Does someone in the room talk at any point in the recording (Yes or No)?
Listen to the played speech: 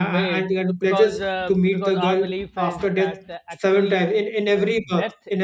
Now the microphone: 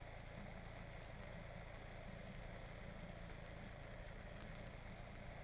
No